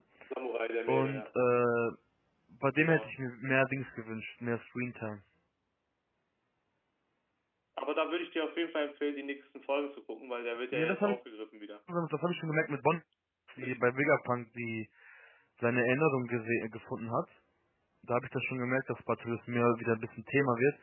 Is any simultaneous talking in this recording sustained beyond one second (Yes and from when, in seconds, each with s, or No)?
No